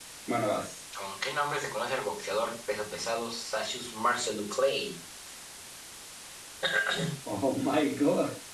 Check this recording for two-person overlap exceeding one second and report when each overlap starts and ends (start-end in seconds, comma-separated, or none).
none